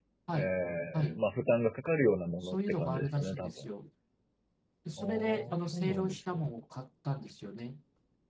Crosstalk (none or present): present